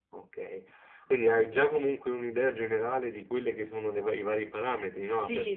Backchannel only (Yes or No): No